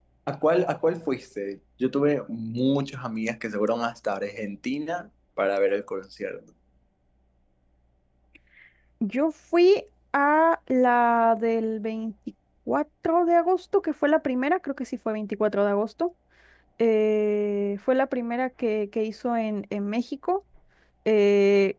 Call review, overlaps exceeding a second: none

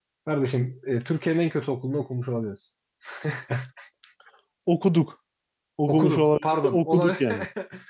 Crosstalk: present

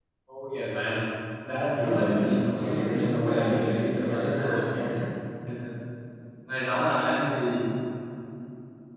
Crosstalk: present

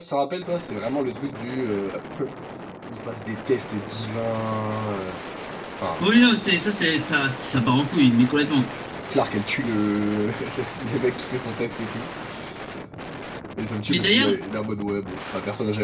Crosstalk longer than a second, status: none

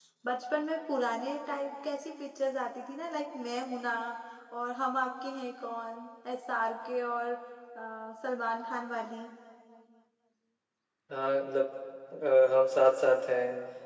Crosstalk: none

